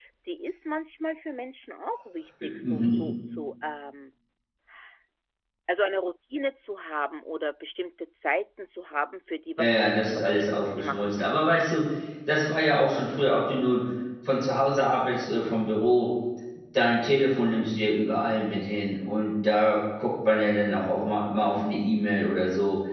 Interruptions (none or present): present